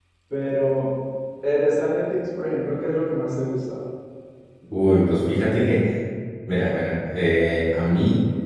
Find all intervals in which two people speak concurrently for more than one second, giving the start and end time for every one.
none

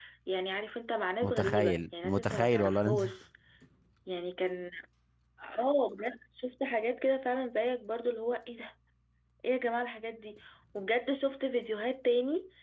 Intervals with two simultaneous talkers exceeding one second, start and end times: 1.2-3.0

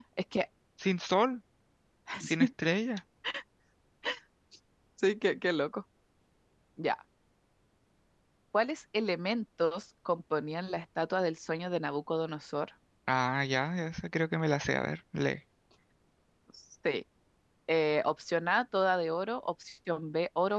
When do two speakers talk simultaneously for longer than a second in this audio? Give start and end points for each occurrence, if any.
none

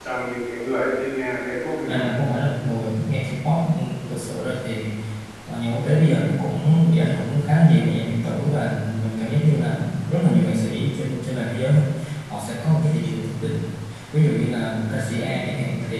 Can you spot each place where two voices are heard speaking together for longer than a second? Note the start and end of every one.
none

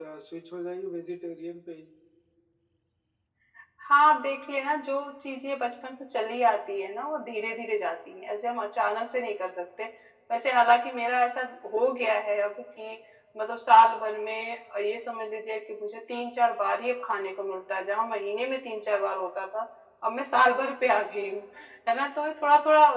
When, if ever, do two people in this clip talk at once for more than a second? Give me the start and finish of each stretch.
none

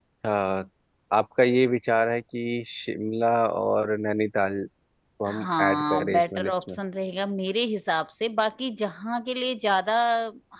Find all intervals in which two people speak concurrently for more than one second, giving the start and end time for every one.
5.2-6.8

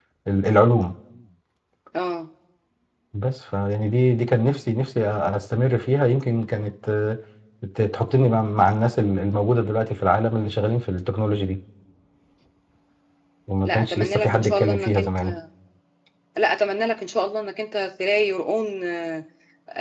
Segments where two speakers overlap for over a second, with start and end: 13.6-15.3

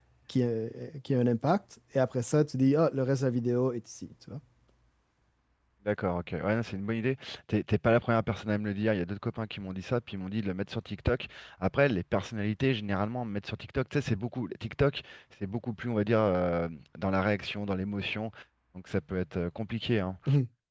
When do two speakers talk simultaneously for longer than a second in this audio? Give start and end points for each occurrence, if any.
none

